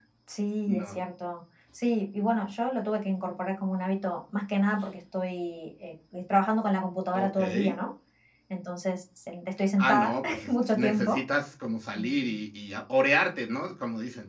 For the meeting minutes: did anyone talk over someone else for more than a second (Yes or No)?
Yes